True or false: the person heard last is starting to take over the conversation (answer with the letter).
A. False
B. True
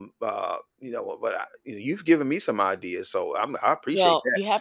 B